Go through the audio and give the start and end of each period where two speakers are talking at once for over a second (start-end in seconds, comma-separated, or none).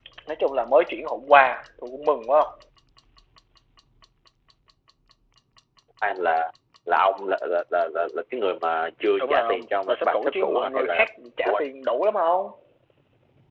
9.2-11.1